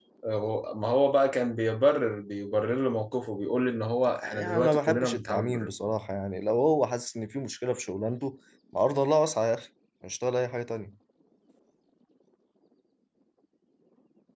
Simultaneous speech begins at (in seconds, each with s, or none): 4.1 s